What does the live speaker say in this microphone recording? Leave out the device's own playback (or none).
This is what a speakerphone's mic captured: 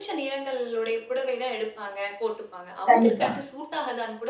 கண்டிப்பா.